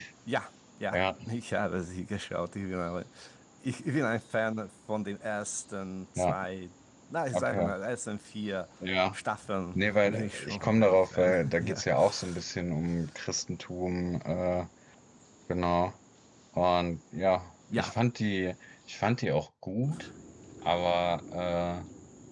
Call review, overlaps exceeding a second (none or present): present